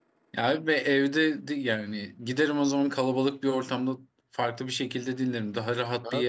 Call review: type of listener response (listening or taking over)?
taking over